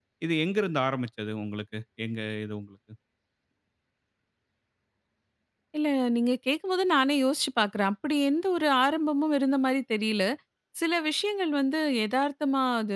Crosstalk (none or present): none